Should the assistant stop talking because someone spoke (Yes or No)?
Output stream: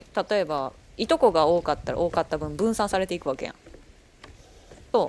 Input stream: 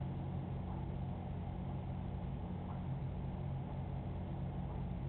No